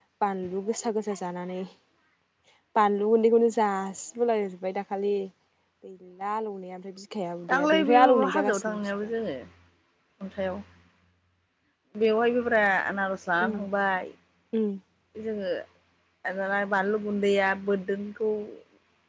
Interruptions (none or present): present